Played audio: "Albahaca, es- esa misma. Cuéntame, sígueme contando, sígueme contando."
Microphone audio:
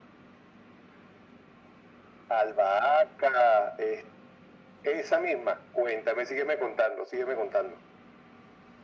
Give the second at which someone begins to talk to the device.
none

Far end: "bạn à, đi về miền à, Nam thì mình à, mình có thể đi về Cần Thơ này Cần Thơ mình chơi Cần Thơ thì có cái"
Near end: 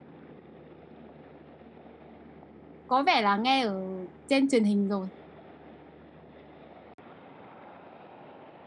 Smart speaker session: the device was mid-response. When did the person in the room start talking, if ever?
2.9 s

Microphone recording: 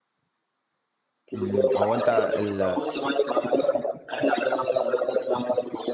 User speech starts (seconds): 1.3 s

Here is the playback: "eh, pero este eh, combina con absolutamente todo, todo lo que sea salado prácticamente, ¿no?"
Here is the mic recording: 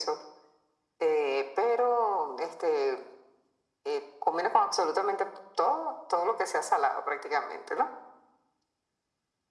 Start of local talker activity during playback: none

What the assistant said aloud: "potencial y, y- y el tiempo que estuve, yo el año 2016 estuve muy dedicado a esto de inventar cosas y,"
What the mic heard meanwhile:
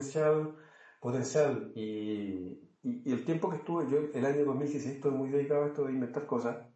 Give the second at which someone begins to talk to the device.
none

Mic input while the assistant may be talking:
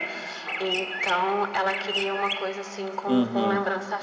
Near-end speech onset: 3.1 s

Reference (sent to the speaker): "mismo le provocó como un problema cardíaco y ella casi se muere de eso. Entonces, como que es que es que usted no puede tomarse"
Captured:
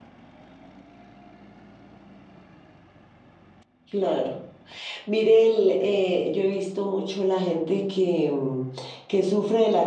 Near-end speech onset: 3.9 s

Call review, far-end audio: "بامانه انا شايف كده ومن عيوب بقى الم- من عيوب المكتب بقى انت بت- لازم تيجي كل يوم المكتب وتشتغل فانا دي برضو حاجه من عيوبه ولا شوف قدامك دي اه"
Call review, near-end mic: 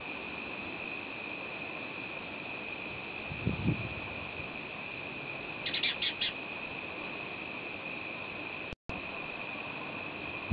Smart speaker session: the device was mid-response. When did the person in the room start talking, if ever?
none

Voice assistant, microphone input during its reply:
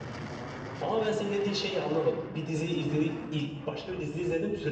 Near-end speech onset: 0.8 s

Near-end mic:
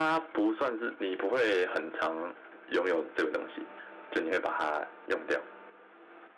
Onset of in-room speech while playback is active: none

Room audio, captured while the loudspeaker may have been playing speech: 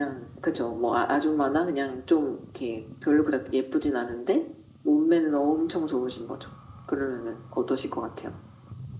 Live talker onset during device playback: none

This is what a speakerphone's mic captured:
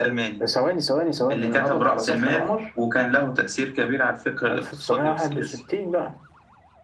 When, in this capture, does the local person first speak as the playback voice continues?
none

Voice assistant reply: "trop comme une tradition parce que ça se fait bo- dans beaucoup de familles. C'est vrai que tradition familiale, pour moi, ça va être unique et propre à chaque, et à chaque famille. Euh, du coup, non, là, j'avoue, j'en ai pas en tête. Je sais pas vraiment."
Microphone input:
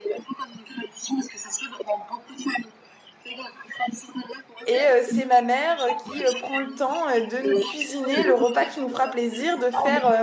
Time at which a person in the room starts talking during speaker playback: 4.7 s

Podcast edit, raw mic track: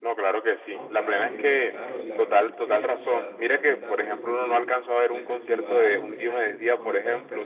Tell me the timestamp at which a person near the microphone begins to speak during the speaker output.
0.7 s

